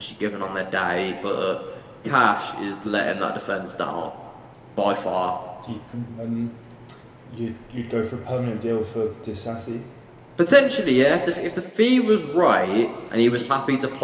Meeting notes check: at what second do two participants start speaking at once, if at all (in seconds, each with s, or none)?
none